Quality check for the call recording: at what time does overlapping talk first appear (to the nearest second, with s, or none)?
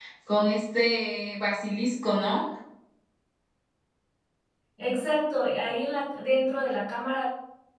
none